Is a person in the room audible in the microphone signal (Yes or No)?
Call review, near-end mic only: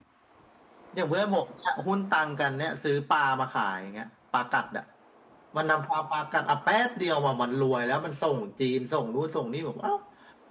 No